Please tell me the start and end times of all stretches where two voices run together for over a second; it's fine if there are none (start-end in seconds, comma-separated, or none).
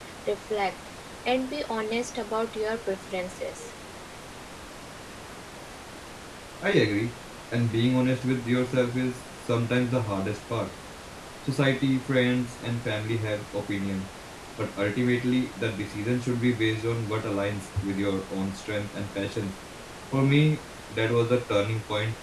none